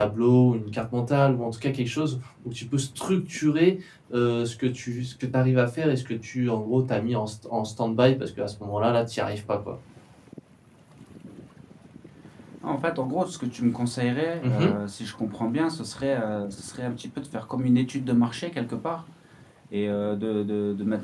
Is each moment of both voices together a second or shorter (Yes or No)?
Yes